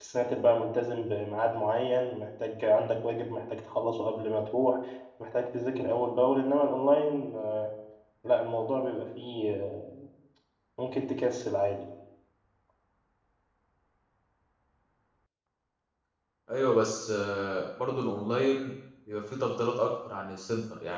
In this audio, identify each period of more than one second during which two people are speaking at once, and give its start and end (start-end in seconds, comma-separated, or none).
none